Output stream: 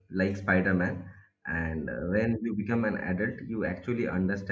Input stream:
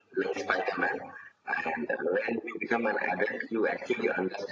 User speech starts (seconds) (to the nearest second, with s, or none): none